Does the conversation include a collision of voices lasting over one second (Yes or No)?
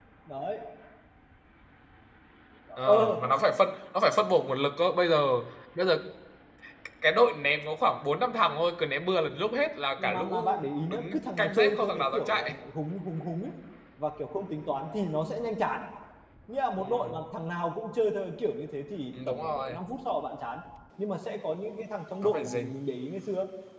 Yes